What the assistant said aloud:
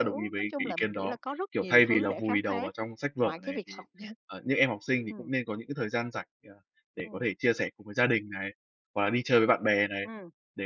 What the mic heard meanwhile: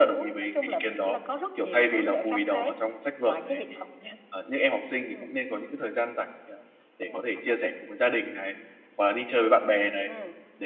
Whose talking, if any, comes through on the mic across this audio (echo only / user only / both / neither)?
both